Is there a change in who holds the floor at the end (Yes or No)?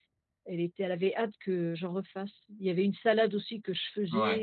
No